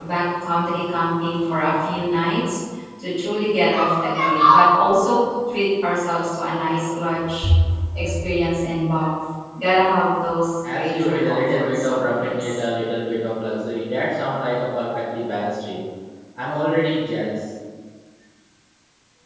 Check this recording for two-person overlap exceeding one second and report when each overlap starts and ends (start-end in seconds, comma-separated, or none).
10.7-12.6